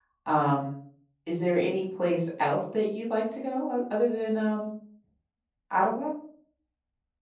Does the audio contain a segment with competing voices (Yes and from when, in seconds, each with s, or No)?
No